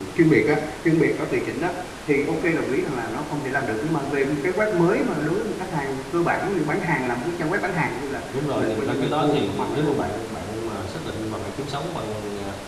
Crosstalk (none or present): present